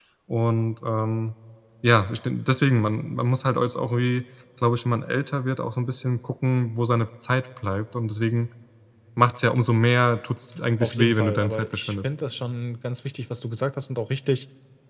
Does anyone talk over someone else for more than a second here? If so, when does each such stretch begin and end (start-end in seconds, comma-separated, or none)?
10.8-12.1